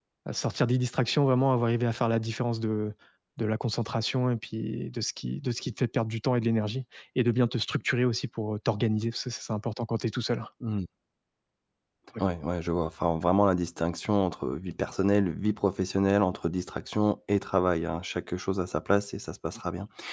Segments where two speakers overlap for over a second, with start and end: none

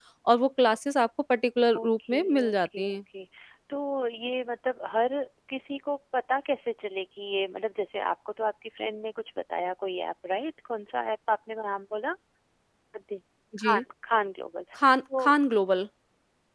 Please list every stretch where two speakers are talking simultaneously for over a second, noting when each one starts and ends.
1.8-3.0

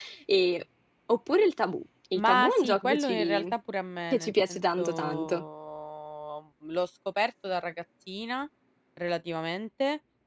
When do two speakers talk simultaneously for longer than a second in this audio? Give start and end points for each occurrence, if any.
2.1-3.5, 4.1-5.4

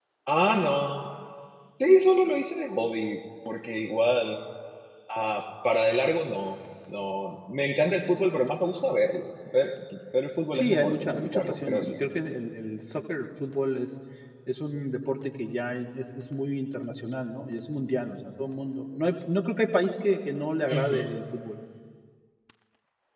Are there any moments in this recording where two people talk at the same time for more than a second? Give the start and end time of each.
10.5-12.0

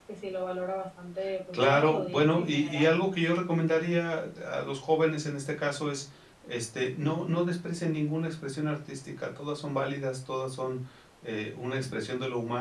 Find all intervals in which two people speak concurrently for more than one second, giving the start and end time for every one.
1.5-2.8

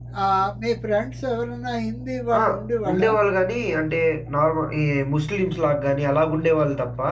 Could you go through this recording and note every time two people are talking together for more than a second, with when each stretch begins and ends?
none

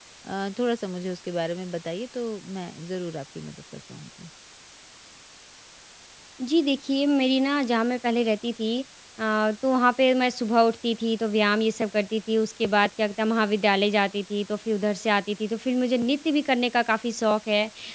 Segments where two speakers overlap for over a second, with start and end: none

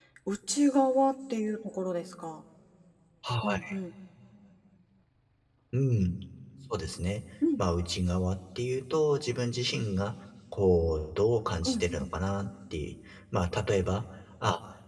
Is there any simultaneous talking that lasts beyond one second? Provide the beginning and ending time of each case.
none

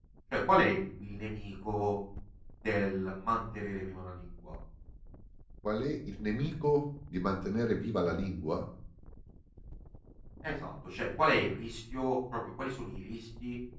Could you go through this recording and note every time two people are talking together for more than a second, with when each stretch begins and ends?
none

